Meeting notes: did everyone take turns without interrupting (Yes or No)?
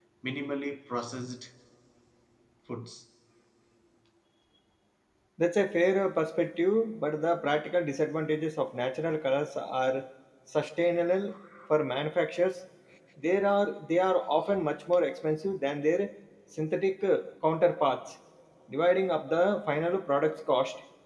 Yes